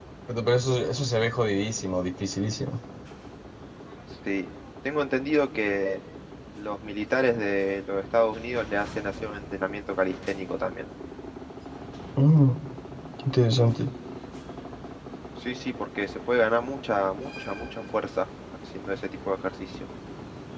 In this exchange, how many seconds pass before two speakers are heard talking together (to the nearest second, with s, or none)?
none